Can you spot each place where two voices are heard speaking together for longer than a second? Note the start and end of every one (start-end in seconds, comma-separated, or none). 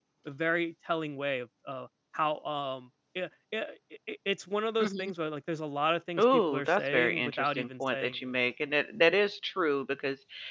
6.2-8.1